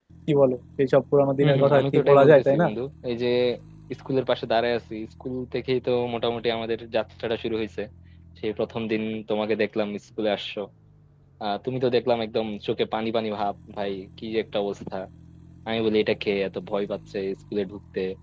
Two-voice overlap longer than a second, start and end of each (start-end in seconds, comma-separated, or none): 1.4-2.7